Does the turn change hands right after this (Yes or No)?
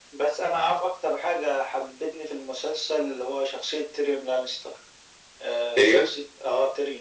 No